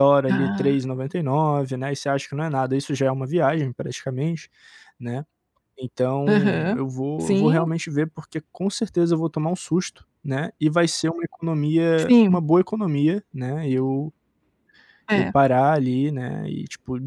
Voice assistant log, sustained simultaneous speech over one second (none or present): none